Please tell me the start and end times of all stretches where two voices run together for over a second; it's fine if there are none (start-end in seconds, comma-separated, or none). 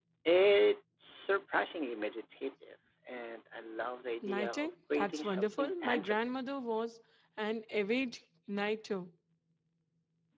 4.2-6.2